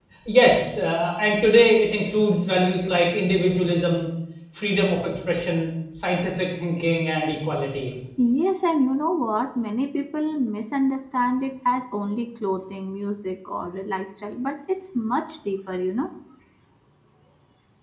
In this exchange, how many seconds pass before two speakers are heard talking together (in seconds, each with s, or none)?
none